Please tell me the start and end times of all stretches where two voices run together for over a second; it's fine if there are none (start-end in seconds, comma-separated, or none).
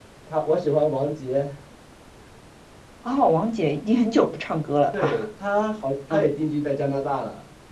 none